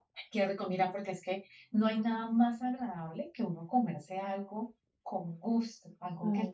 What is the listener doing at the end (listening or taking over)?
listening